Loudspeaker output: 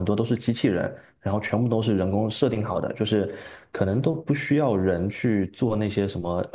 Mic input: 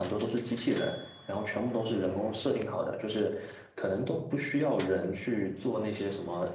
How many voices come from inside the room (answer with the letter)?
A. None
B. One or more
A